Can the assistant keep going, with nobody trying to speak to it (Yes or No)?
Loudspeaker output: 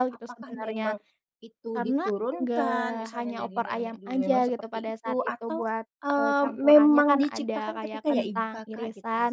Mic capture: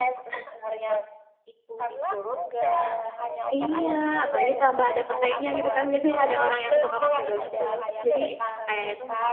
No